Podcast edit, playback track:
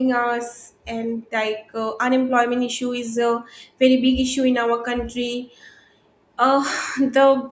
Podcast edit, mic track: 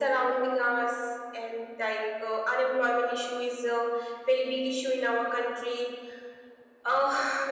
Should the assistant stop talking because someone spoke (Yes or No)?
No